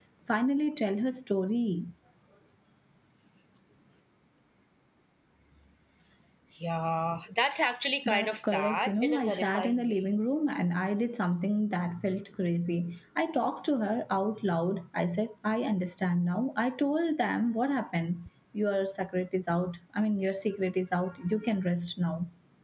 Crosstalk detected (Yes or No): Yes